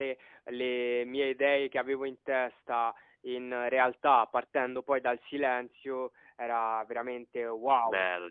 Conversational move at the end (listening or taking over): taking over